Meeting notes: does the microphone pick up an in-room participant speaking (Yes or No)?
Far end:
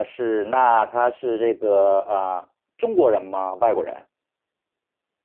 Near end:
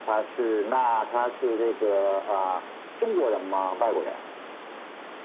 No